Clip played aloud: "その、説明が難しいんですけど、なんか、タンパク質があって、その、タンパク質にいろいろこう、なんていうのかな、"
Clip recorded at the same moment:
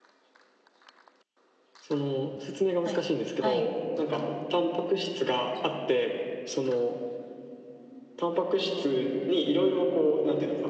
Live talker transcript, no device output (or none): はい。はい。